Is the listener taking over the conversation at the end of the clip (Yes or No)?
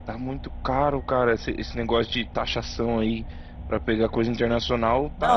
Yes